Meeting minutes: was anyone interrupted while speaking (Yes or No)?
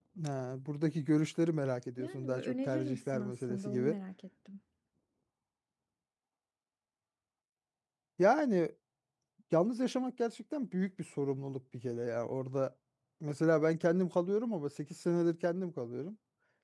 Yes